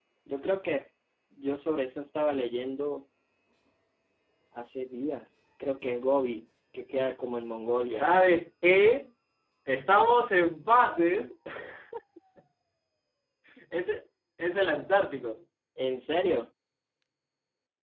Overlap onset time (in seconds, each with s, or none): none